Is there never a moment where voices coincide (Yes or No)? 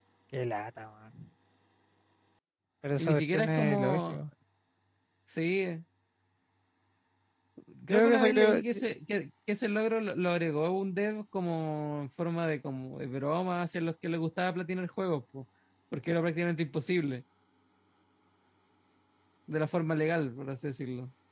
No